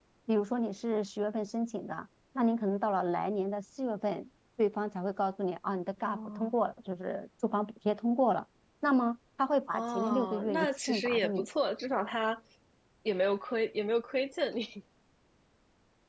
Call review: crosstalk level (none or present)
present